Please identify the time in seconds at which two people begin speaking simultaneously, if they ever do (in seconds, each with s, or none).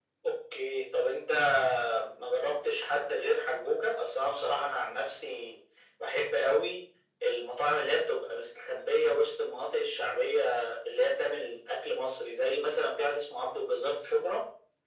none